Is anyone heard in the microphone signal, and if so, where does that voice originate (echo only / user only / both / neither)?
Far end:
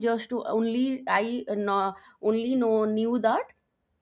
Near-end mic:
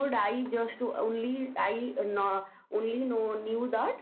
echo only